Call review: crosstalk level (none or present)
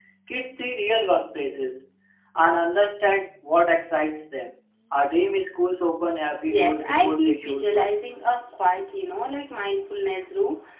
present